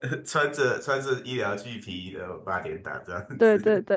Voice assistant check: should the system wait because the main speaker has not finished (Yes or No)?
No